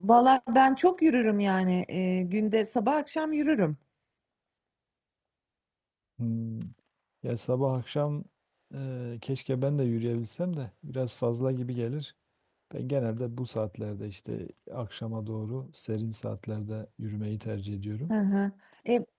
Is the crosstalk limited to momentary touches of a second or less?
Yes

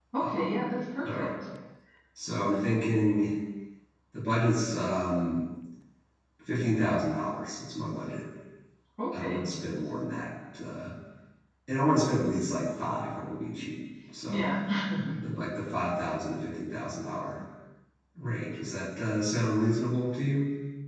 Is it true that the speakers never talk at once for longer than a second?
Yes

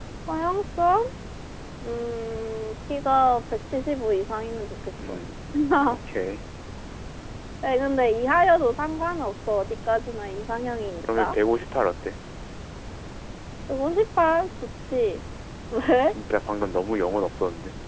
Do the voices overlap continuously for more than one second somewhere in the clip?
No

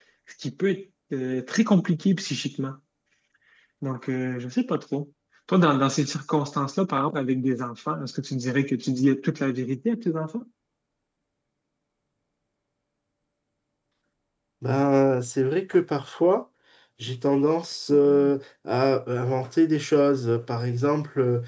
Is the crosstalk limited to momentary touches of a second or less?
Yes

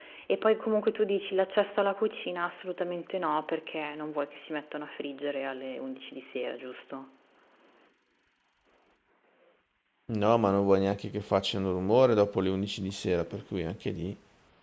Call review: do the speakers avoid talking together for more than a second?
Yes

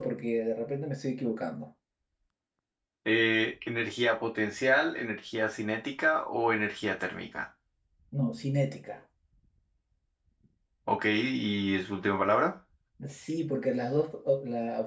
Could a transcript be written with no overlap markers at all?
Yes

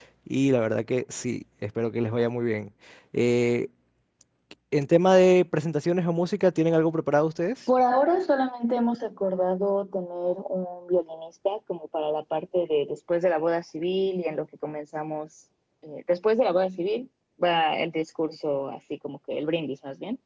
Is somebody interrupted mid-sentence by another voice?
No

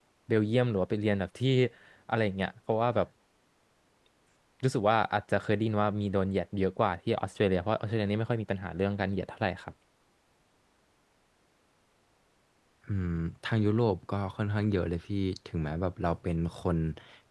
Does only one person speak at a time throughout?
Yes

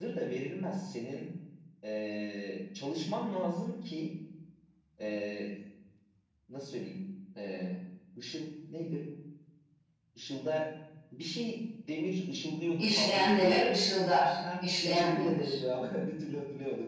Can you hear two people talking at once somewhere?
Yes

